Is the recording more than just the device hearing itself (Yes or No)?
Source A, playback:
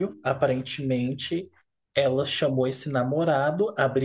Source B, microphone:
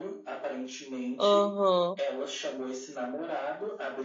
Yes